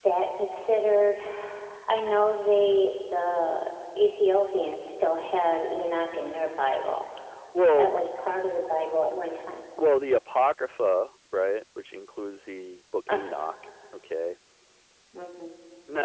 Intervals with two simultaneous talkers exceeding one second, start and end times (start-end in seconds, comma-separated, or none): none